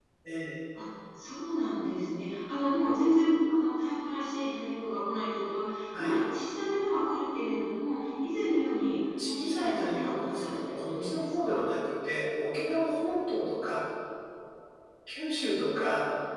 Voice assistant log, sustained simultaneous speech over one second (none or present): present